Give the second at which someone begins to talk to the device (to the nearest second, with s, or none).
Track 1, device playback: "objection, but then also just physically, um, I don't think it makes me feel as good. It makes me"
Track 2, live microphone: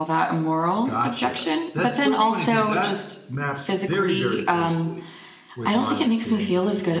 1 s